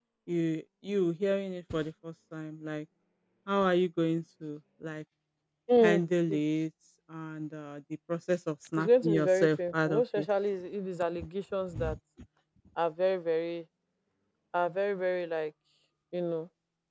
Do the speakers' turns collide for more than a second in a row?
Yes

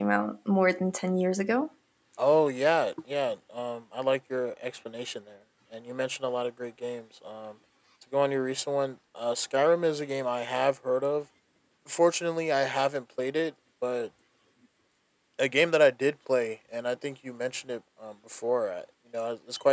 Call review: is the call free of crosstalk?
Yes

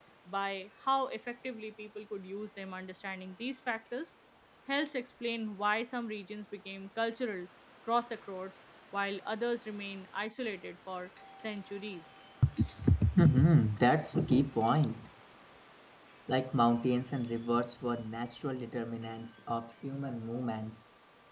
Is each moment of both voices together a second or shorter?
Yes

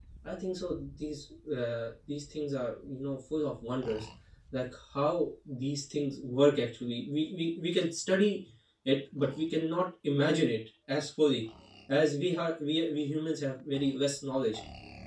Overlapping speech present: No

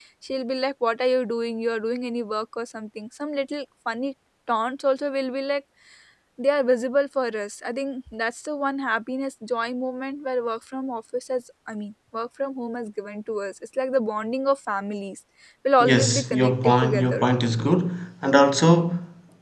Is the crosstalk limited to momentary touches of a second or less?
No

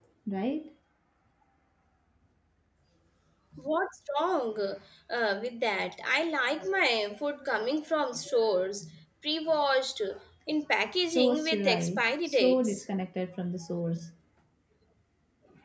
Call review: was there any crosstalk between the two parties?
Yes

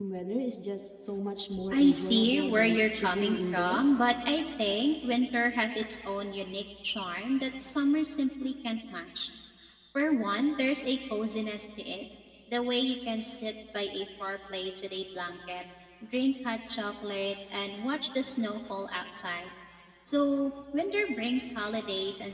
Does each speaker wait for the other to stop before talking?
No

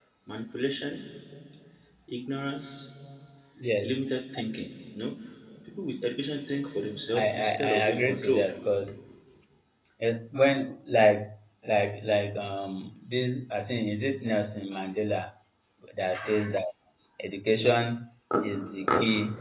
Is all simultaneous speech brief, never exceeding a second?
No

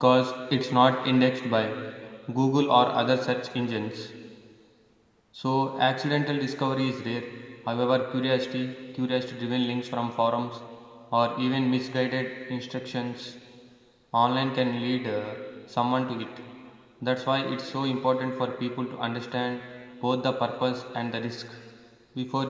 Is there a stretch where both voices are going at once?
No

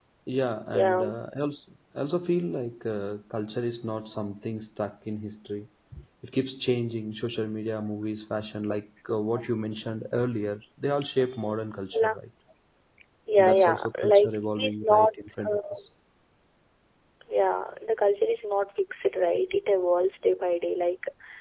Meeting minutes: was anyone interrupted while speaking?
Yes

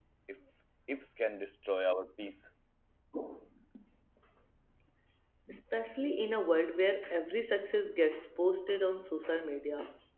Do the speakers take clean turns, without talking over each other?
Yes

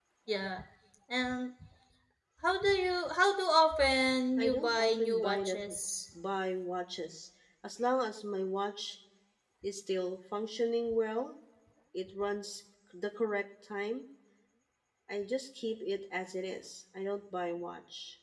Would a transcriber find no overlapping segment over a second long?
No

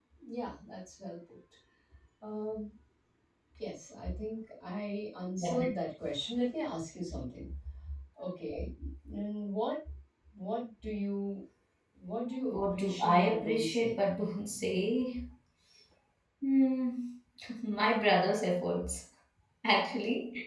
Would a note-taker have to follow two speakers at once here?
Yes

